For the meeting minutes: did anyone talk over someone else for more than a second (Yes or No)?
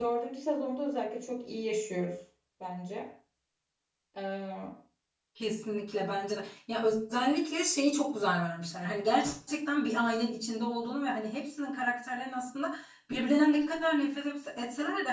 No